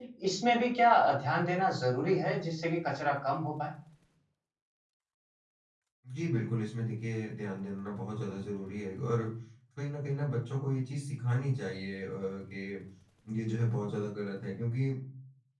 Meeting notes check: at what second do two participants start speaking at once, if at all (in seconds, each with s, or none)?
none